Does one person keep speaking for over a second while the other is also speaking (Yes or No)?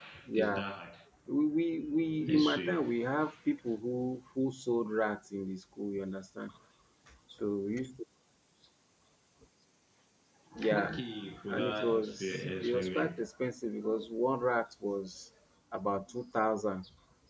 Yes